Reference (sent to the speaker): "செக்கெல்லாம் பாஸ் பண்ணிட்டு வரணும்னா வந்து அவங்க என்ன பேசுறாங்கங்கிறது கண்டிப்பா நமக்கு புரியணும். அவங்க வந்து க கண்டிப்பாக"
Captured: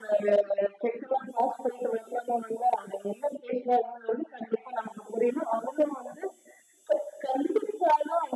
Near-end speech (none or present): none